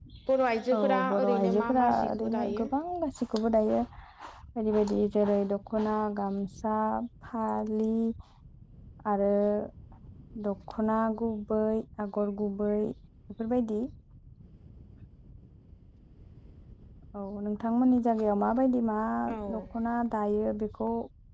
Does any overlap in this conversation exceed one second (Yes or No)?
Yes